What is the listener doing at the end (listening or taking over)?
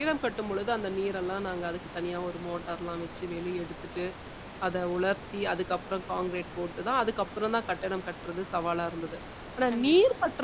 listening